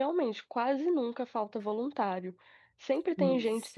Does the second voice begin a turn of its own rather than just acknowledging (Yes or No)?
No